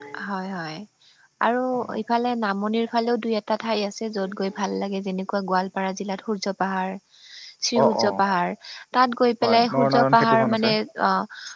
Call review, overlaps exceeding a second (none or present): present